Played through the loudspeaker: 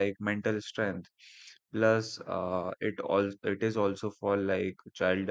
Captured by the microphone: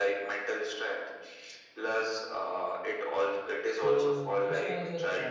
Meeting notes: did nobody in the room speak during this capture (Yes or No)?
No